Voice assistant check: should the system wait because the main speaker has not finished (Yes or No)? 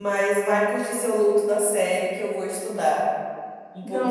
No